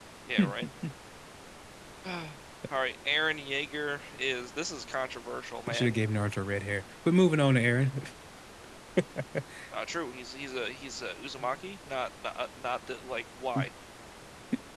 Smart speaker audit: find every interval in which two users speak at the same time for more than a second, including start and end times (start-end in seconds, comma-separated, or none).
none